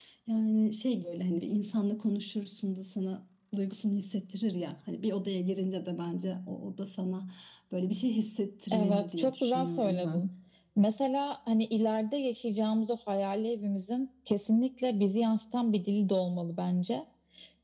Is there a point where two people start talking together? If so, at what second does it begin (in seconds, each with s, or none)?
8.7 s